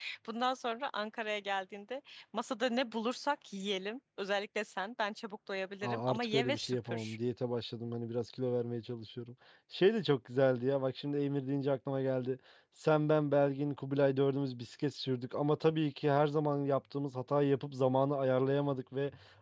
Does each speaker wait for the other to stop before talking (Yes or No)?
No